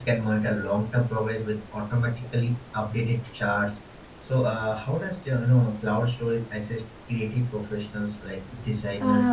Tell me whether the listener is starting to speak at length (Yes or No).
Yes